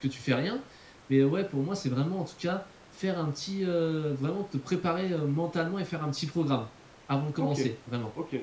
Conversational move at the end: taking over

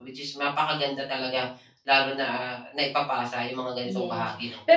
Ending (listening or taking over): taking over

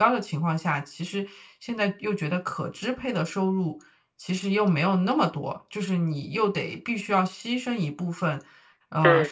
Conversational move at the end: listening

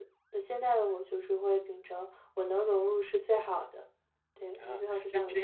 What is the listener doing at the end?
taking over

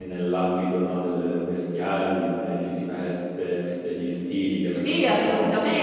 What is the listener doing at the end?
taking over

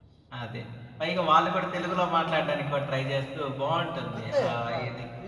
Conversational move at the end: taking over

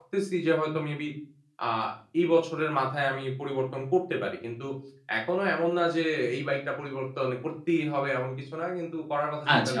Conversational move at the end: taking over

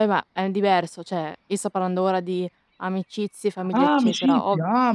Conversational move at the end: taking over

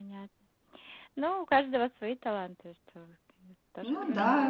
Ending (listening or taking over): taking over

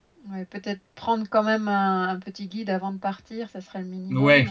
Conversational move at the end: taking over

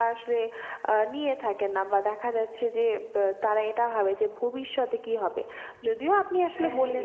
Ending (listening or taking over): listening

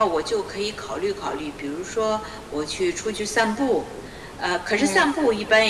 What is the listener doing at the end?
listening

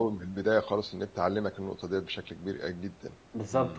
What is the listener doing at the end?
taking over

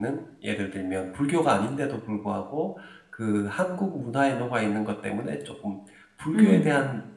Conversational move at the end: listening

